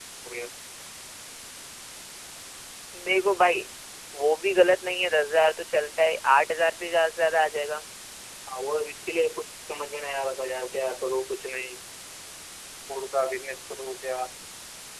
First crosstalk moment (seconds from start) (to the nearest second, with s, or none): none